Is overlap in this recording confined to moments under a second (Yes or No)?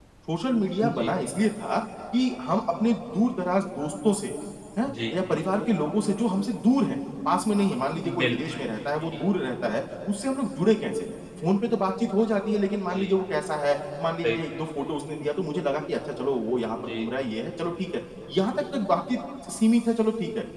Yes